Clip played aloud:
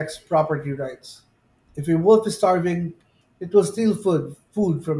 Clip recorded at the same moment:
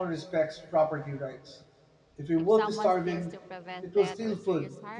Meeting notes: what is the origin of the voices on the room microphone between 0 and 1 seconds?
echo only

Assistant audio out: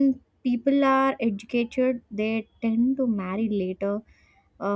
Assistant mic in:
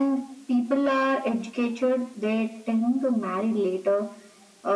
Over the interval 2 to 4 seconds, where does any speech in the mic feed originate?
echo only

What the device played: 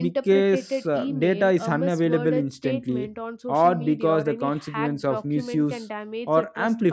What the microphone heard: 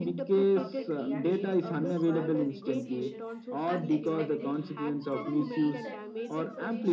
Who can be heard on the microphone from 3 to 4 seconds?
both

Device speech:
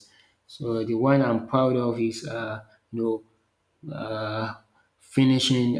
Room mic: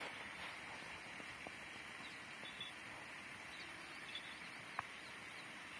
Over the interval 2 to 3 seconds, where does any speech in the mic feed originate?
neither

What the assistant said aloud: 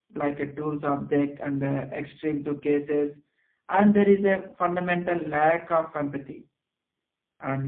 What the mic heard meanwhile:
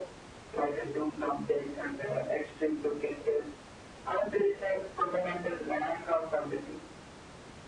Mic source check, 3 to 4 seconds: echo only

